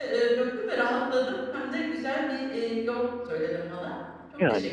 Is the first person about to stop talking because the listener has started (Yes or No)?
Yes